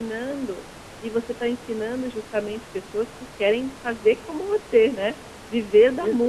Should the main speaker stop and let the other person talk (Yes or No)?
Yes